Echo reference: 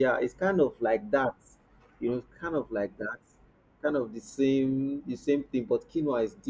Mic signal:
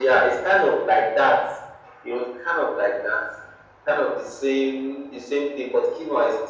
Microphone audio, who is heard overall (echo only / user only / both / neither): echo only